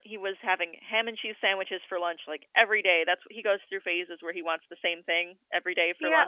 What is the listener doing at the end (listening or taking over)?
taking over